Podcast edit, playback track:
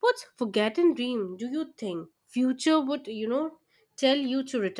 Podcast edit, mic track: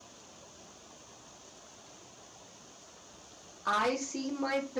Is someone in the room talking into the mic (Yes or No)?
Yes